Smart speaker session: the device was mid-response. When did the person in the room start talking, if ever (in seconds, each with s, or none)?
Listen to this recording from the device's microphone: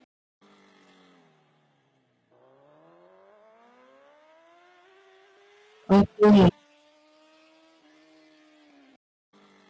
6.0 s